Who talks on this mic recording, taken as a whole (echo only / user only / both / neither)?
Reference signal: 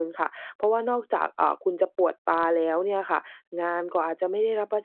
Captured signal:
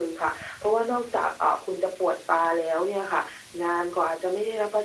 echo only